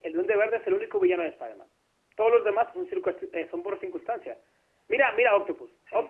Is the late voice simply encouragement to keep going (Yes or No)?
Yes